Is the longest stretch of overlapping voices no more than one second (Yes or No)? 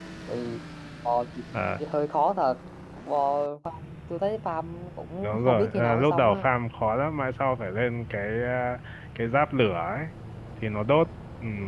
No